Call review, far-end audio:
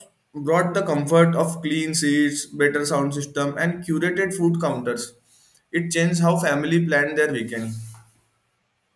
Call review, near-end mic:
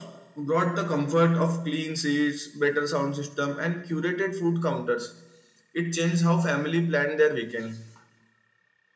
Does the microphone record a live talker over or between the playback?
No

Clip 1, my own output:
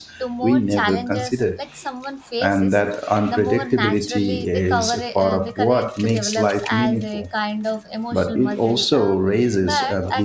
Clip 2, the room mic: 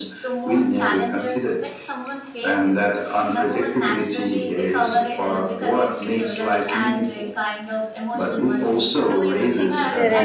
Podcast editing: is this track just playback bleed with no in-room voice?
No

